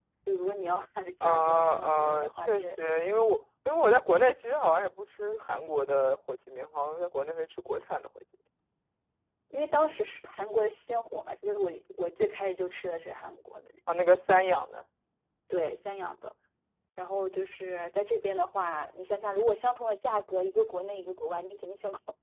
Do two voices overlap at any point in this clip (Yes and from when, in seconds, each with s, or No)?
Yes, from 1.2 s